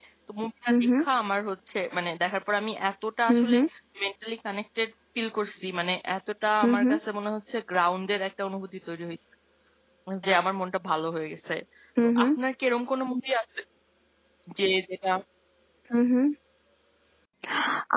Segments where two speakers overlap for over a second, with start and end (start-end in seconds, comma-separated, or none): none